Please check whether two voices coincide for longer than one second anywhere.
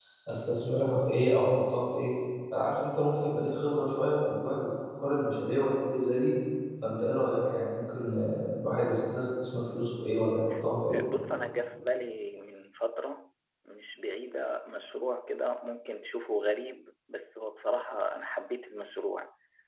No

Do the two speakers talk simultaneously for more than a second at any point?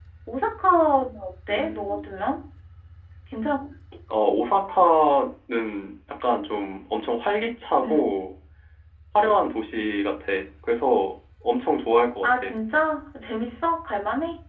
No

